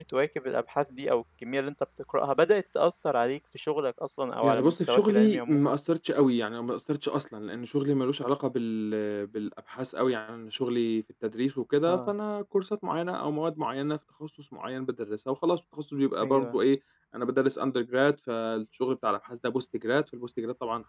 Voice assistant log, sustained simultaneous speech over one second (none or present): present